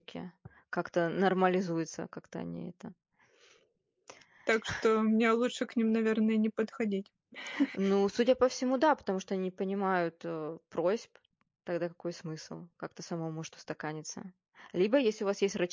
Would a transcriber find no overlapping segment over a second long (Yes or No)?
Yes